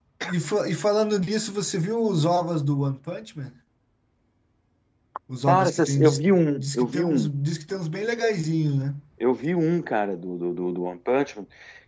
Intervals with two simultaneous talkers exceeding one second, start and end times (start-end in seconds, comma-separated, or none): 5.5-7.3